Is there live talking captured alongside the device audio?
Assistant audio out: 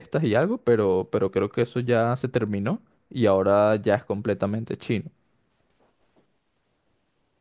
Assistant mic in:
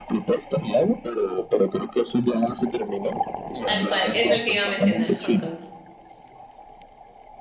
Yes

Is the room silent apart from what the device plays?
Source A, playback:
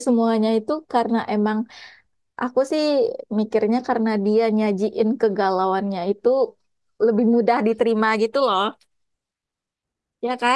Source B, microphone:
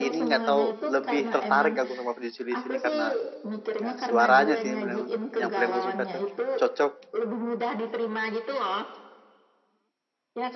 No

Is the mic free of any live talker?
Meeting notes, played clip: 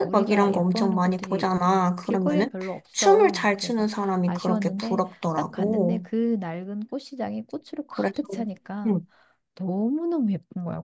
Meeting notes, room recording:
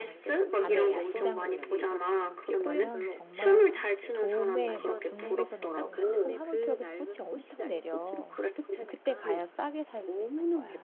No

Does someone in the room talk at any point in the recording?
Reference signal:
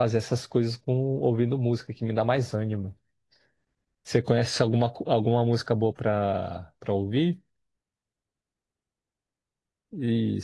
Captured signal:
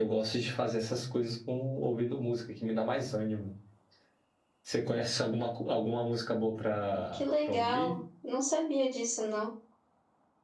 Yes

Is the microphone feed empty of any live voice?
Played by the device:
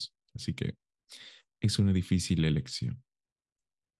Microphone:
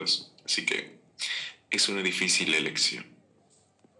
Yes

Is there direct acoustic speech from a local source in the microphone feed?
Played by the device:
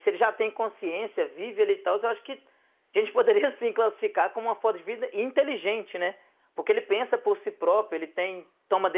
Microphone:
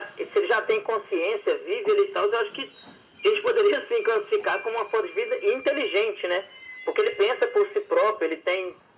No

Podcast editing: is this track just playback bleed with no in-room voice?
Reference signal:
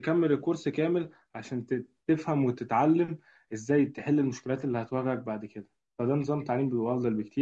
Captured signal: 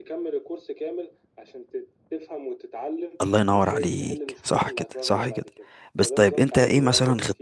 No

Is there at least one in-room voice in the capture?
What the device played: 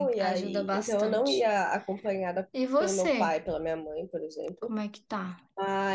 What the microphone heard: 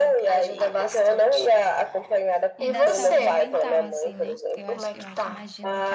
Yes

